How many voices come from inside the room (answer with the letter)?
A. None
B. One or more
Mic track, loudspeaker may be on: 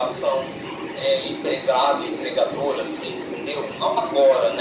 A